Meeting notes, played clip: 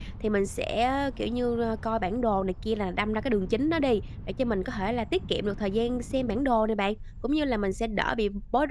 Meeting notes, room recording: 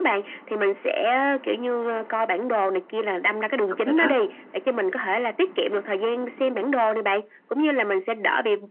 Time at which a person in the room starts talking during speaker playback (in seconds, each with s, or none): 3.7 s